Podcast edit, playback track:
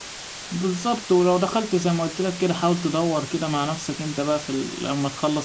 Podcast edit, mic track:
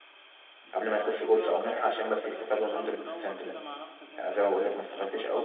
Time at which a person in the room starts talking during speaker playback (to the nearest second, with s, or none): 1 s